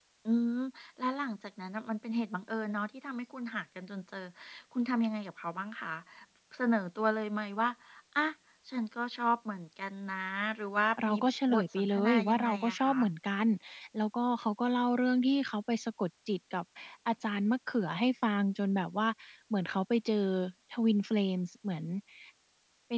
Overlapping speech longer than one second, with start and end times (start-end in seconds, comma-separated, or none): 11.5-12.9